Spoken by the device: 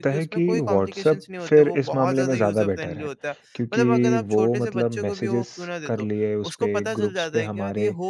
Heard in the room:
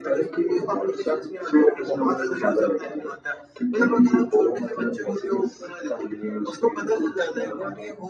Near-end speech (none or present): none